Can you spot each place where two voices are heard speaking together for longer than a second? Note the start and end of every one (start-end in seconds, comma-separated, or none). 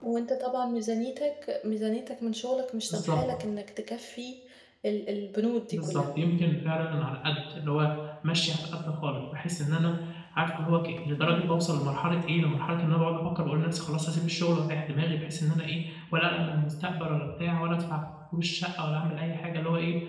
none